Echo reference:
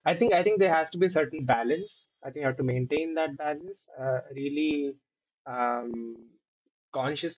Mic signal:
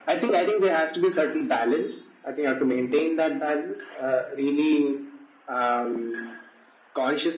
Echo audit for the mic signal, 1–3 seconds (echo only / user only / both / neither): echo only